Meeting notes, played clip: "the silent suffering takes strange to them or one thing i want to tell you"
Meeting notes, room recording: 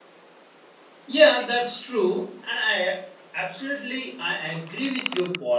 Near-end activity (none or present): present